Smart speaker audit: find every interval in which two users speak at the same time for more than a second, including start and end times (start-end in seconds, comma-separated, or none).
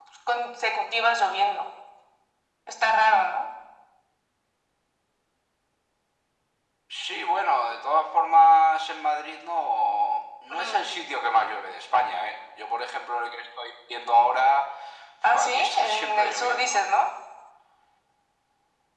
15.4-16.8